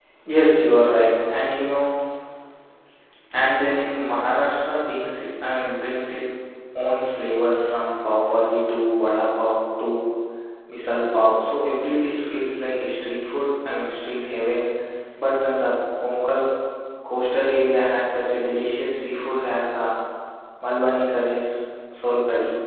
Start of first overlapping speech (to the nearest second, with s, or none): none